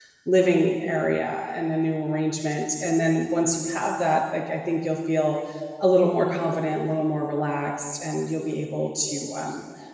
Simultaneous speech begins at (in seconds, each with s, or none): none